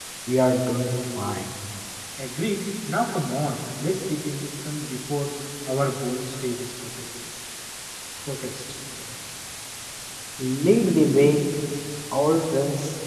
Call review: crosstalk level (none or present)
none